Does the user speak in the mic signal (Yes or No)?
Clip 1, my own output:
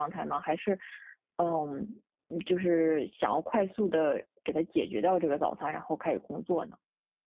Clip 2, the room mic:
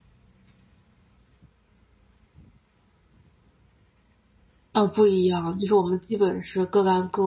Yes